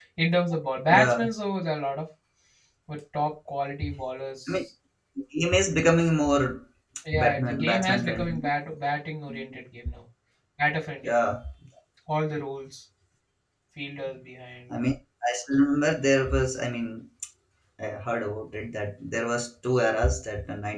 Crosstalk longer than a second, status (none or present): present